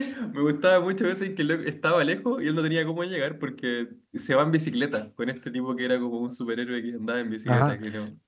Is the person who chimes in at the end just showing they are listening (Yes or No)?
No